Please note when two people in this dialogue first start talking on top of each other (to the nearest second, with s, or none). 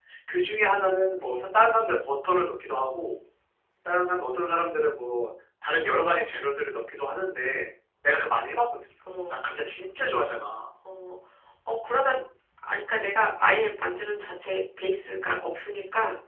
none